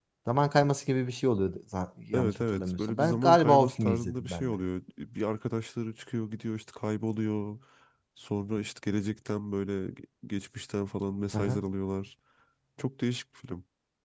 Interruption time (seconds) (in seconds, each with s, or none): 2.1 s